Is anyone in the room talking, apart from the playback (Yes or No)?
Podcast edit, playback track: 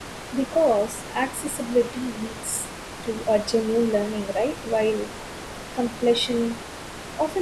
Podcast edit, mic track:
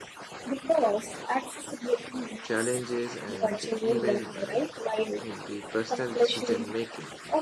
Yes